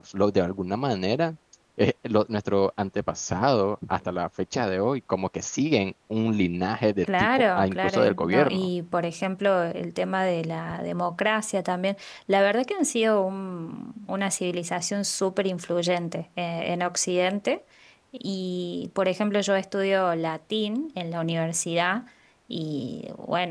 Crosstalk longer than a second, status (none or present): present